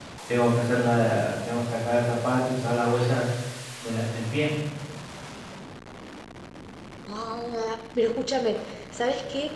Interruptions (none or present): none